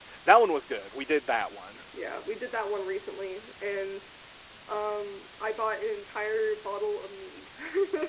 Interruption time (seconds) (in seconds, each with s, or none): none